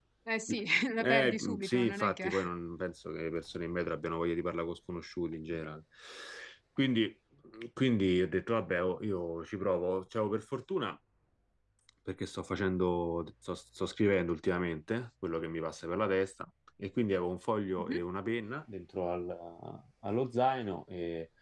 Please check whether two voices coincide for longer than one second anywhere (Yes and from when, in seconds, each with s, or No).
Yes, from 1.0 s